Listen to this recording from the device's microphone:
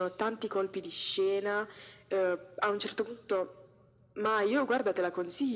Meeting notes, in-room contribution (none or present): none